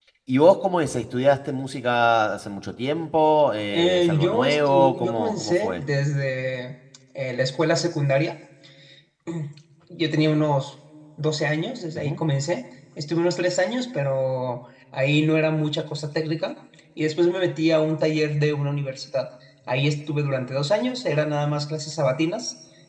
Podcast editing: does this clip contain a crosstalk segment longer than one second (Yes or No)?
Yes